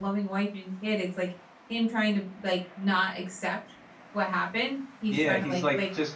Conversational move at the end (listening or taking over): taking over